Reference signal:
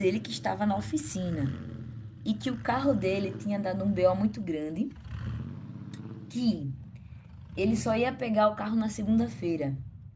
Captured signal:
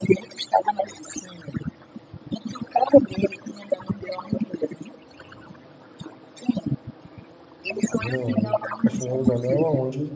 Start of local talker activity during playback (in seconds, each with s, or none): 8.0 s